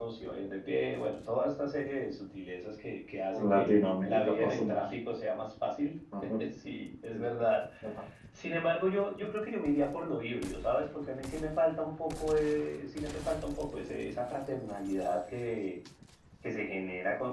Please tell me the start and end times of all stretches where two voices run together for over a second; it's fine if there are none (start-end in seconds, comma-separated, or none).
3.3-4.8